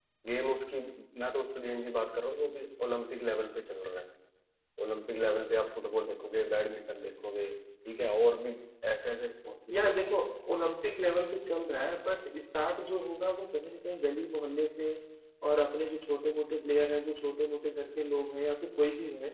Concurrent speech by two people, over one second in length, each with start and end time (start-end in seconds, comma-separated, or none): none